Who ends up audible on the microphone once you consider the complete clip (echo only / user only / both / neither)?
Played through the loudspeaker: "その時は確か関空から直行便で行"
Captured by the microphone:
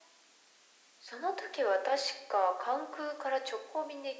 echo only